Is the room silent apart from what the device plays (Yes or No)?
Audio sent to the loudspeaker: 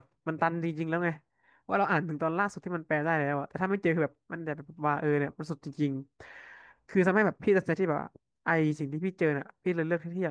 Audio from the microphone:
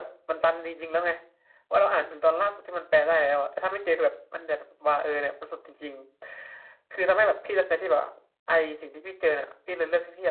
Yes